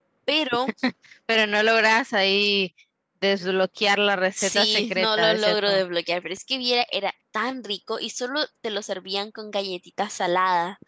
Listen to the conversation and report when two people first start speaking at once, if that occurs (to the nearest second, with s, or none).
4 s